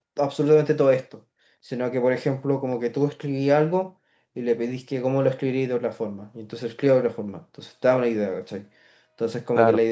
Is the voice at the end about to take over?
No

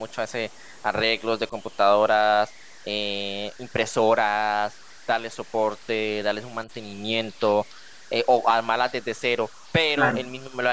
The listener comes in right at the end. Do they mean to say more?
No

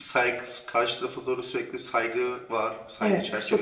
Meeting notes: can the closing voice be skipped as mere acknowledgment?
No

